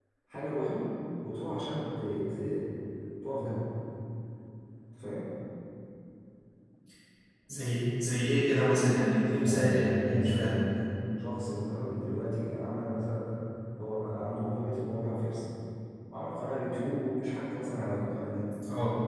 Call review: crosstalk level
present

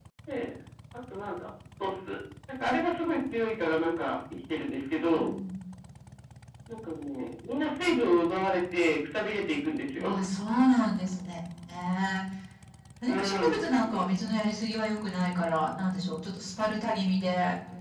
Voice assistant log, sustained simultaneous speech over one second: none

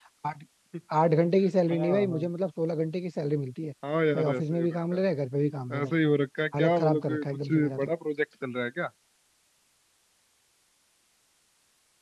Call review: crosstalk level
present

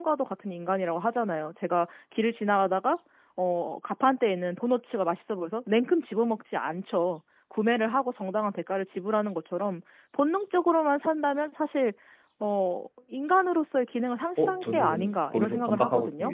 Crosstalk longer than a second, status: present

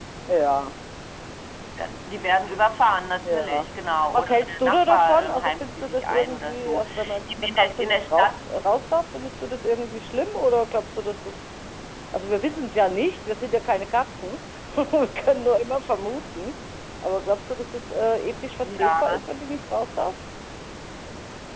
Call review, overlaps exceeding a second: present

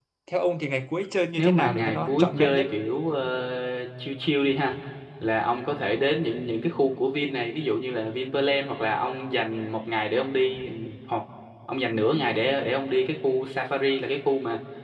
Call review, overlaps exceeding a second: present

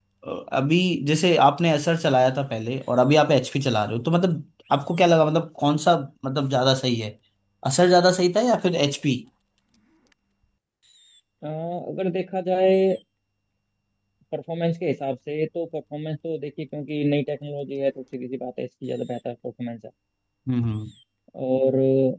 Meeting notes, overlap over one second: none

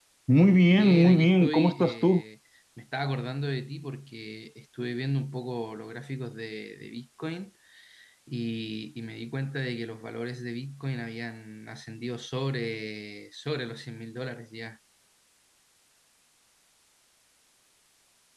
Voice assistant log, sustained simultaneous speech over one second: present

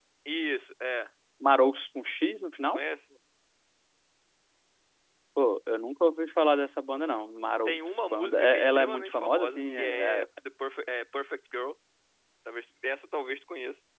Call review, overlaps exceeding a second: present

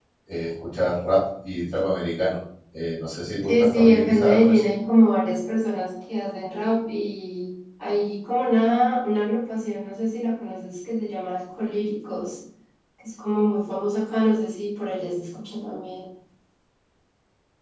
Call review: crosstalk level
present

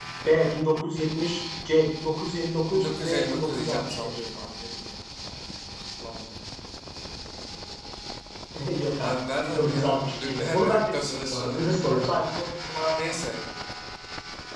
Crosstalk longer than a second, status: present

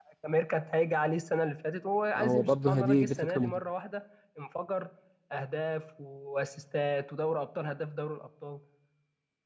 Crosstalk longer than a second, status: present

